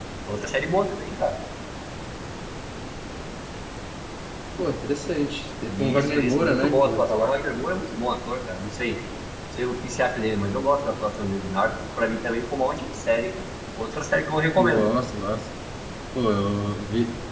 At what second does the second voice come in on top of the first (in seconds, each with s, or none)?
5.7 s